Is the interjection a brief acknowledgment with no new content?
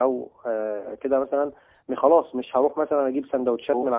Yes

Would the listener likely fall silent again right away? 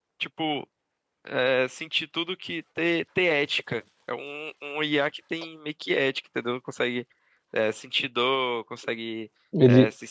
Yes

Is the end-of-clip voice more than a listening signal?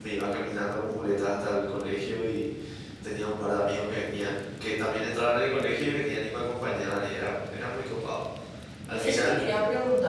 Yes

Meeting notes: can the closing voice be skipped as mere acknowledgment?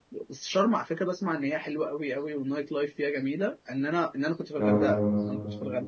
Yes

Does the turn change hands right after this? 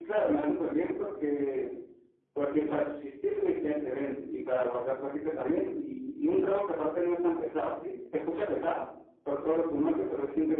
No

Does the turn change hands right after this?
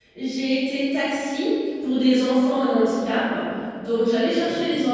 No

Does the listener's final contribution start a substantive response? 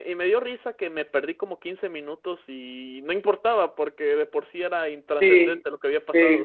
Yes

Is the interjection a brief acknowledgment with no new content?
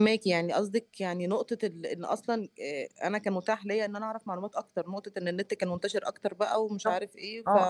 No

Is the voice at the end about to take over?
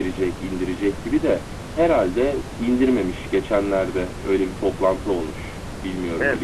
Yes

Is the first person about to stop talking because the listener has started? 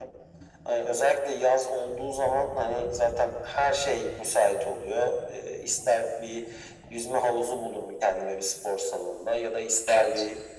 No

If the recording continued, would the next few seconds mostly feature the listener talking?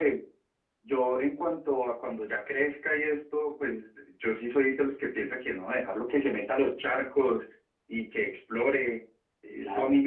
No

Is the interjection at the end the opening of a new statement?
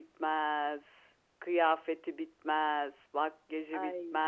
No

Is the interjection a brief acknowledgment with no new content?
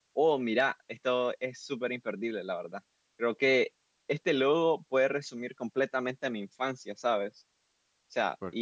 Yes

